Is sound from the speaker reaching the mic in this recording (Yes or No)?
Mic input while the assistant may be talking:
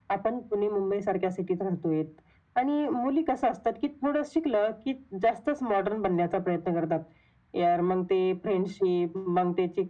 Yes